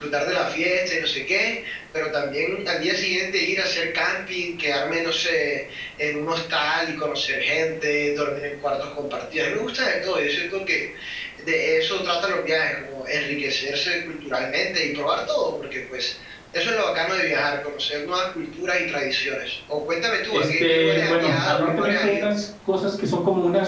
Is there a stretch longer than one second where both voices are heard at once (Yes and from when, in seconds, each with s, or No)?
Yes, from 20.3 s